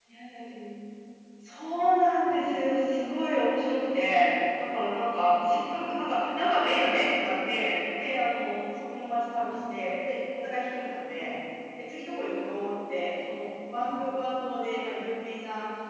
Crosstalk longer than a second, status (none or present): none